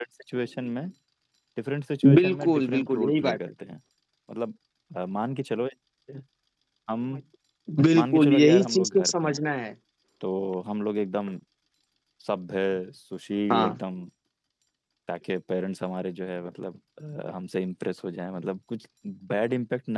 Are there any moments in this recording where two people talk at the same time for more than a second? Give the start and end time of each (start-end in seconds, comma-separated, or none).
2.1-3.4, 8.0-9.4